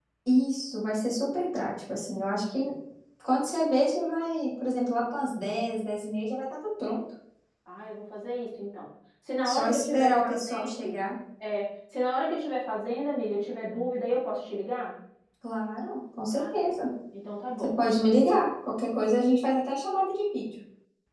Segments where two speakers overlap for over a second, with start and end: 9.4-11.0

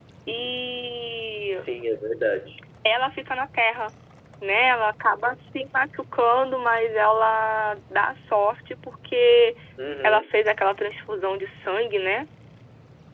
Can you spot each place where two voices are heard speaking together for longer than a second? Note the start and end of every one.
none

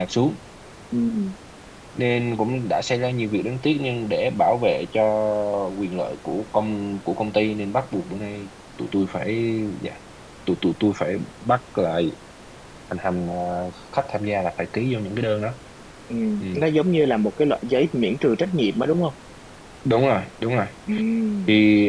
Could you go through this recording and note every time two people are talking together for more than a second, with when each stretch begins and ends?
none

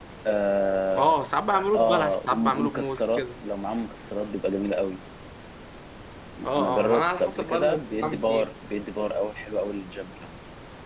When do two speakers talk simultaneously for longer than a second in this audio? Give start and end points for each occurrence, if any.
1.8-3.2, 6.6-8.4

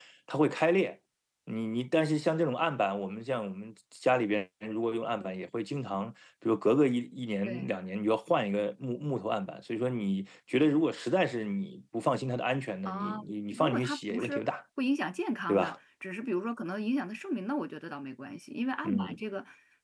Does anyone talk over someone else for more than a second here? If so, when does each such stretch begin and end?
12.8-14.5

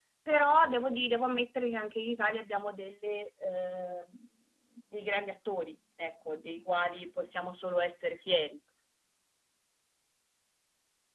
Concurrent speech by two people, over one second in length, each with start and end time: none

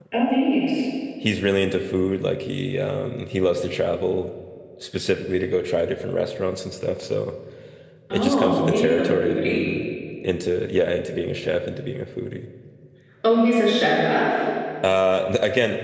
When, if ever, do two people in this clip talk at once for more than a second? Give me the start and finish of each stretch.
8.1-9.7

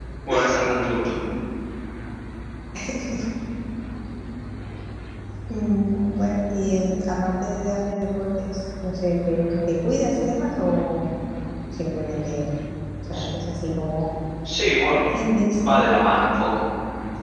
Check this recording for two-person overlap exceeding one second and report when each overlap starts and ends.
none

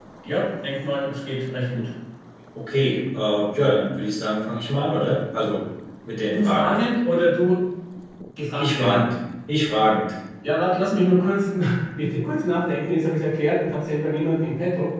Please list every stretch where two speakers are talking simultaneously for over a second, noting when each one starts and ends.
none

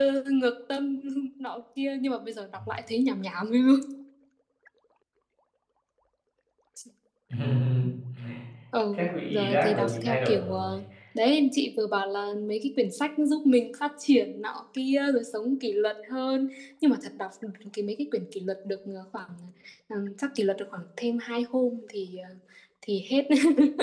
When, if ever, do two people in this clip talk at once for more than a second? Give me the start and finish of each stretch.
8.9-10.8

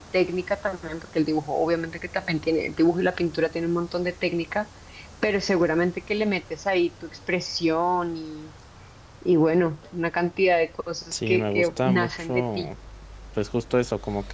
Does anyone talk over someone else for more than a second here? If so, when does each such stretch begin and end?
11.1-12.7

